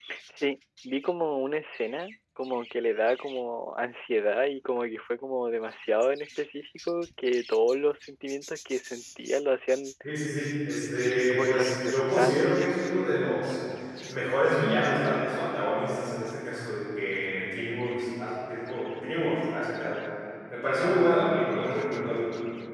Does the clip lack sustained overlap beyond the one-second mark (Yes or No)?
No